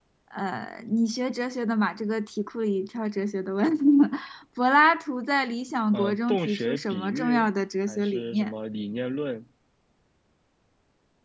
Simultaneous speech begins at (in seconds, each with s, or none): 5.9 s